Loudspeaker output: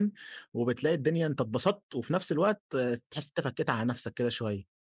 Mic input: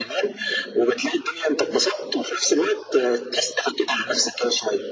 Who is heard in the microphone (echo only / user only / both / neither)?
echo only